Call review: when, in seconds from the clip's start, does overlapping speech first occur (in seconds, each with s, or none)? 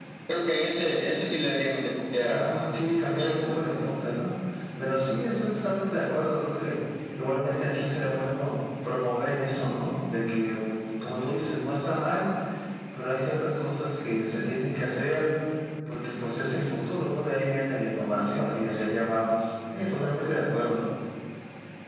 2.3 s